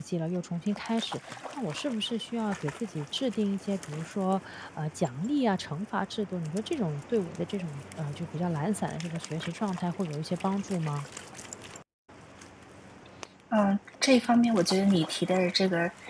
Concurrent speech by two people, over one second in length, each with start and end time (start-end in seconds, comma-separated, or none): none